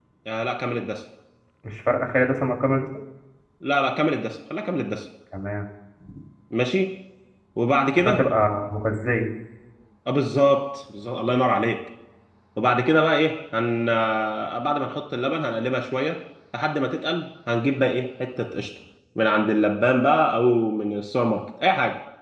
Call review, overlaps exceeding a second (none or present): none